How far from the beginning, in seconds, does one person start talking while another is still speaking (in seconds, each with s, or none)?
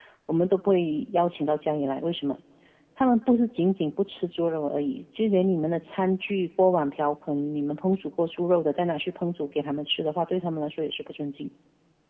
none